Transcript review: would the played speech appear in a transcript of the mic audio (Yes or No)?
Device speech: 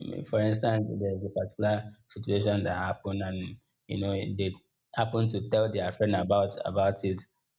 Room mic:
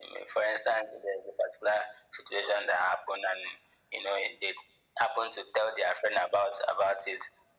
Yes